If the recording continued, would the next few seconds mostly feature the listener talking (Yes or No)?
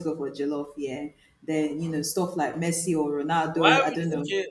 Yes